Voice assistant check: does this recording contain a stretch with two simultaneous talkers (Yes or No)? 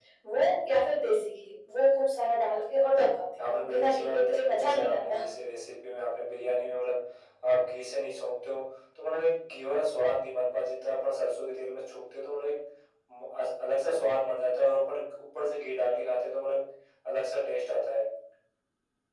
Yes